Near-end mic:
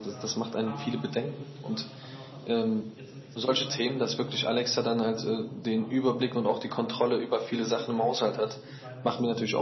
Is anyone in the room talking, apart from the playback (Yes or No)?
Yes